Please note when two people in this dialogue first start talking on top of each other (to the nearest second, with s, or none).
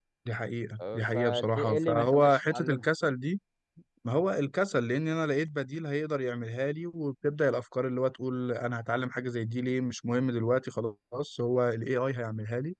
1 s